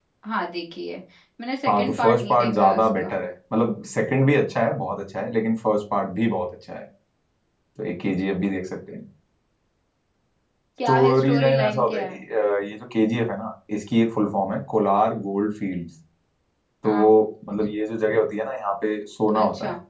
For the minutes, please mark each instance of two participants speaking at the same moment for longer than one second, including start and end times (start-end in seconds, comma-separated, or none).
1.7-3.1, 10.8-12.2